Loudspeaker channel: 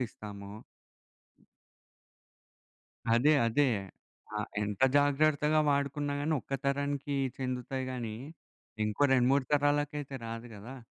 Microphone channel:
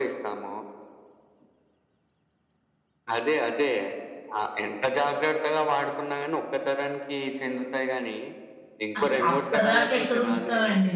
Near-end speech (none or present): present